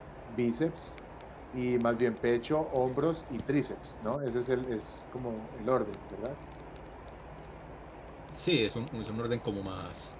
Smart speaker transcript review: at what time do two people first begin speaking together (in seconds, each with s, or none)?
none